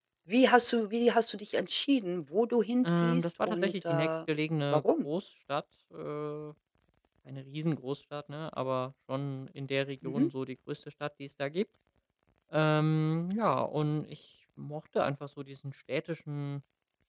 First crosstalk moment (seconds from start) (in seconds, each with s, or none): 2.8 s